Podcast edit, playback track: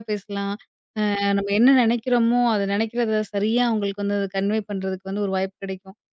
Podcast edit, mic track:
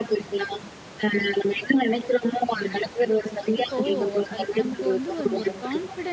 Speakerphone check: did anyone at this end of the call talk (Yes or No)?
Yes